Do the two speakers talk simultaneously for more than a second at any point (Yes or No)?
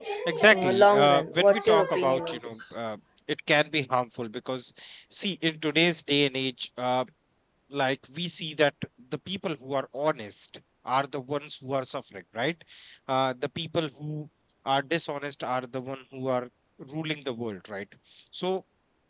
Yes